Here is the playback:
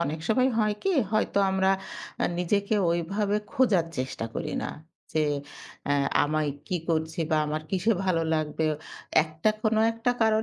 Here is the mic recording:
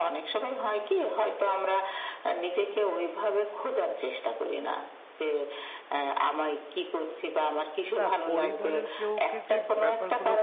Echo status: present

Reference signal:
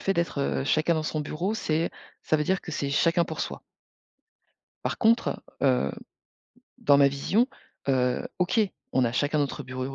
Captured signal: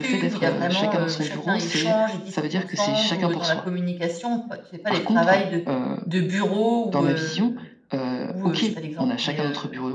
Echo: present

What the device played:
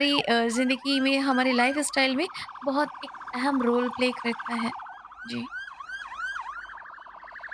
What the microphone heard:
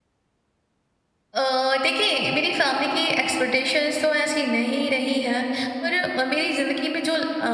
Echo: none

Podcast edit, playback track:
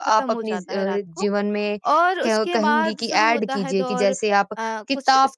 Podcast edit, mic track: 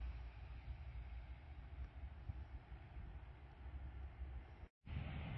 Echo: none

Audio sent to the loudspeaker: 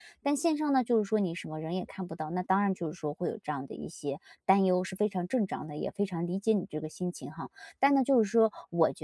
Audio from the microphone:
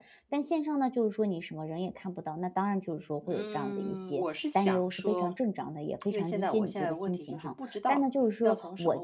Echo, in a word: present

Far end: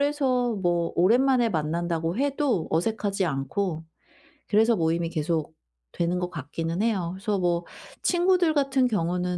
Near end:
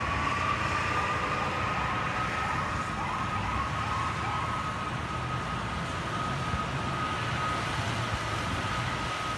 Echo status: none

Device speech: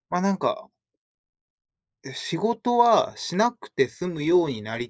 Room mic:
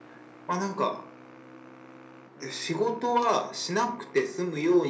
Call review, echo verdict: present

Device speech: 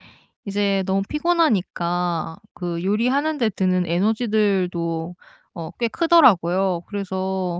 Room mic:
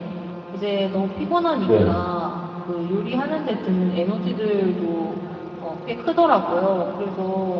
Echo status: present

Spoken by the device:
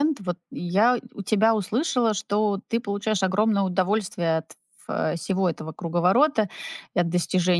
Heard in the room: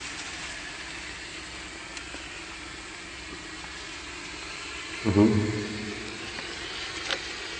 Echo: none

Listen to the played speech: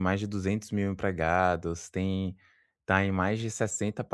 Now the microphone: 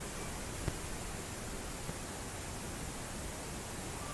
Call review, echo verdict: none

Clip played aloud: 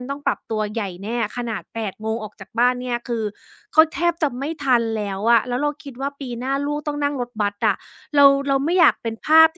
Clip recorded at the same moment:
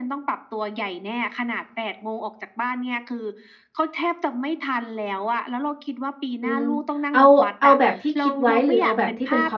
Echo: present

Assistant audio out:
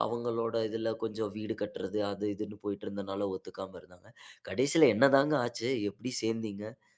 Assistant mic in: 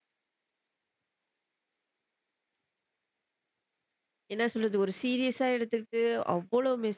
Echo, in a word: none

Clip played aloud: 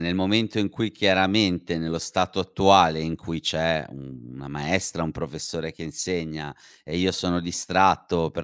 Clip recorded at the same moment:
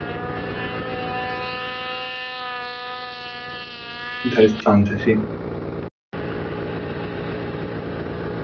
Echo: none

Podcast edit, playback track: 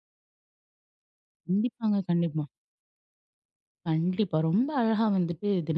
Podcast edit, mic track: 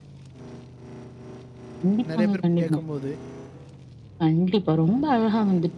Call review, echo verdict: present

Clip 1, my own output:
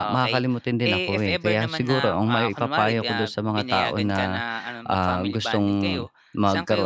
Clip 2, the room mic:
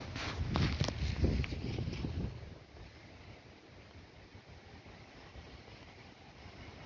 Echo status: none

